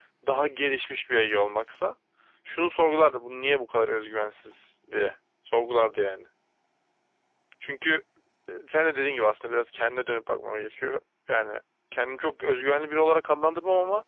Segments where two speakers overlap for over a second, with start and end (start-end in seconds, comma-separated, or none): none